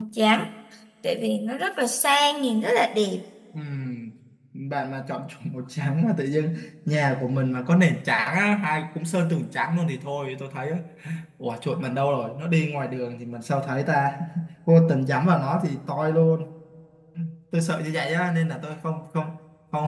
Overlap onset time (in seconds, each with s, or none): none